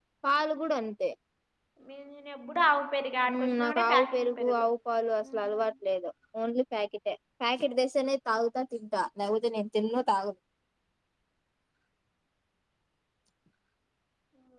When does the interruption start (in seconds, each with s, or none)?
3.3 s